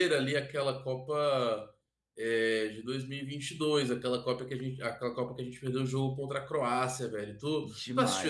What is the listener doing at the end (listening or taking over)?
taking over